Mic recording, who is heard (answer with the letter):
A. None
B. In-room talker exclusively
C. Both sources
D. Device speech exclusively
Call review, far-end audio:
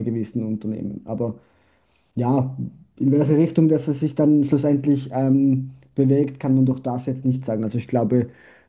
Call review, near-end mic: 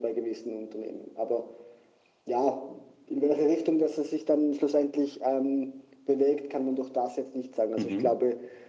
C